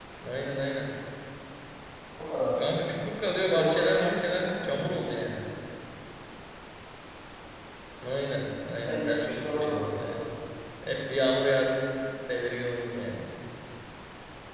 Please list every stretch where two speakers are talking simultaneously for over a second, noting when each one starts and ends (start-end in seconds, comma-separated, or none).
3.5-5.0, 8.7-10.2